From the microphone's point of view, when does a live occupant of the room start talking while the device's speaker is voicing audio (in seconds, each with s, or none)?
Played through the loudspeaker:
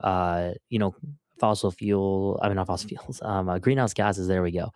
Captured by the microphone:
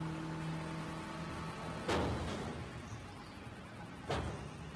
none